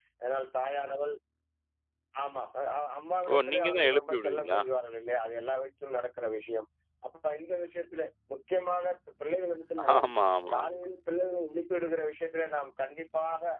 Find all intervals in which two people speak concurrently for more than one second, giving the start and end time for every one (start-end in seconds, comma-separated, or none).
3.3-4.6